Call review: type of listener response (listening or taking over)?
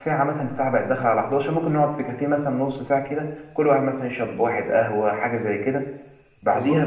listening